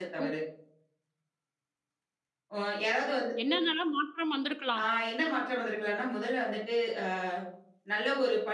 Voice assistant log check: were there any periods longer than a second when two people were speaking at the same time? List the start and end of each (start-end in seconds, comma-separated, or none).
none